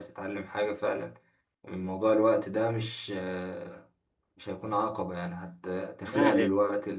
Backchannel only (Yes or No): Yes